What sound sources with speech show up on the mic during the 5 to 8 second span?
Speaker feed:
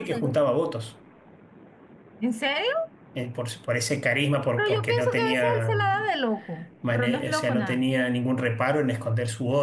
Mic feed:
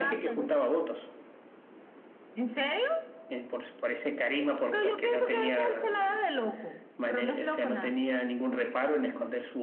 echo only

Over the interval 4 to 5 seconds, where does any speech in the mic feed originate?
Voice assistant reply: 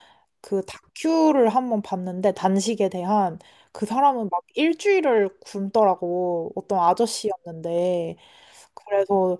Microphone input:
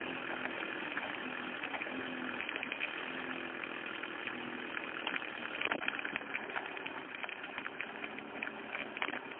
neither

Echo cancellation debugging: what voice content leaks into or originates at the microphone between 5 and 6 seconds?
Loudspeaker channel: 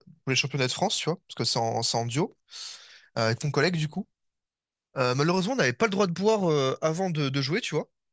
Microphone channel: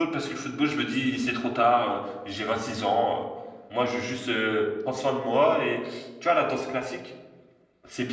user only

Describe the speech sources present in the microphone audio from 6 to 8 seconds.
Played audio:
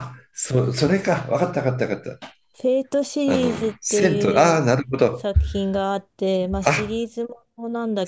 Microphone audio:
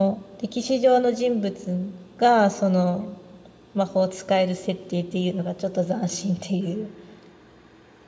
user only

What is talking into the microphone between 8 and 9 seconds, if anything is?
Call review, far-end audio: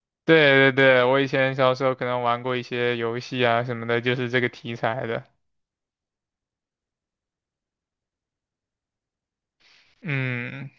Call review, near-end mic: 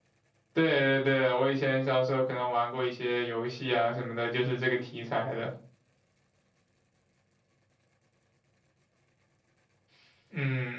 neither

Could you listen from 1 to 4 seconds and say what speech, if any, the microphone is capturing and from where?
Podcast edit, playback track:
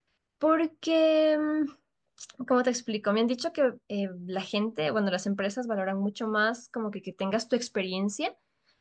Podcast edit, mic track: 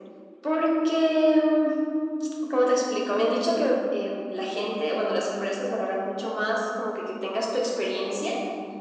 echo only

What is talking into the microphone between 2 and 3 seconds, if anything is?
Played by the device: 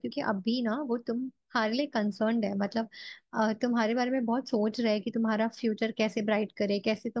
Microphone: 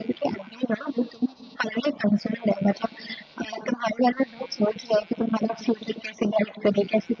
echo only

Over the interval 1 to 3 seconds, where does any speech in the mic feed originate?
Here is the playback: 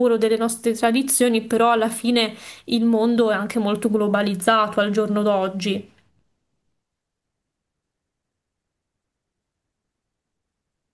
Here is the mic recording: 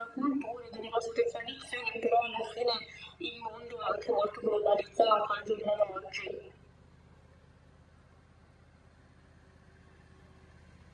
echo only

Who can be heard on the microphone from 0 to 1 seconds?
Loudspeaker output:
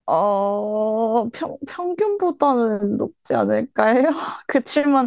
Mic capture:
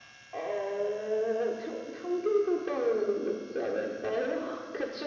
echo only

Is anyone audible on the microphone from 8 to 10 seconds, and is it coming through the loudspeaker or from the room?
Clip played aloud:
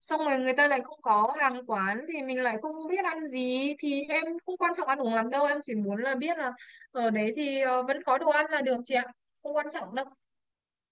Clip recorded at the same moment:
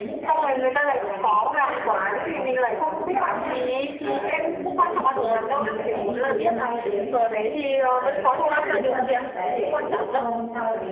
both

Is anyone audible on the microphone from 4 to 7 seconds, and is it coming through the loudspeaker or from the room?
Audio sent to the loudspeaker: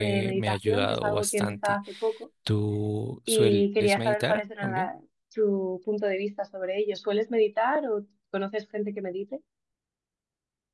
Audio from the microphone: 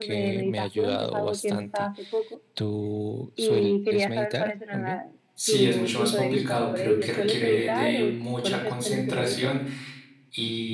both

